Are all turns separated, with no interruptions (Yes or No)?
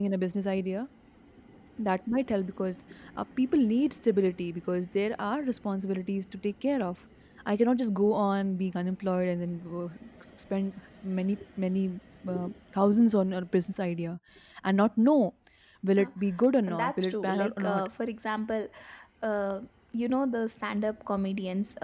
No